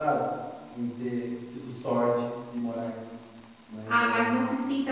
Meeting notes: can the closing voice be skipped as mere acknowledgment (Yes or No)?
No